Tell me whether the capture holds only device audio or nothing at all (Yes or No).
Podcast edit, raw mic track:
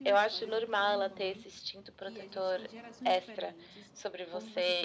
No